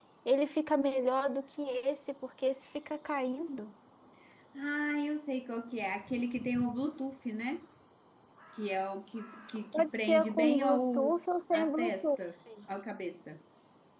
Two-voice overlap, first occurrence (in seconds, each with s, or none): 9.7 s